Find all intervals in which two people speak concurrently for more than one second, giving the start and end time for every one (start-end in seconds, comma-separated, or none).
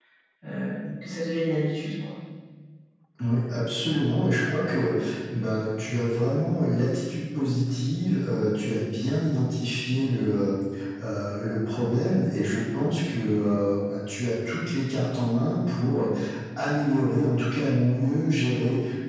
none